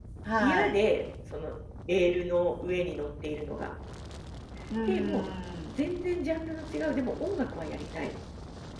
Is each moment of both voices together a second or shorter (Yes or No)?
Yes